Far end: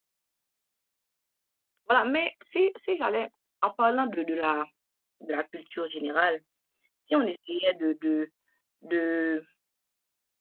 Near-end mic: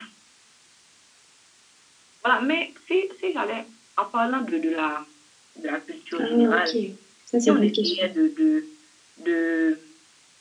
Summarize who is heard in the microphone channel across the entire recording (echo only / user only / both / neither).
both